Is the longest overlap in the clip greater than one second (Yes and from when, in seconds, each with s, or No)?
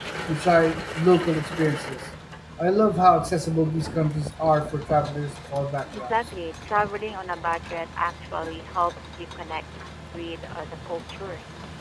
No